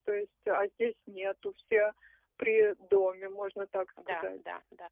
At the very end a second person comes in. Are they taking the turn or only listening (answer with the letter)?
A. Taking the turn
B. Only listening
A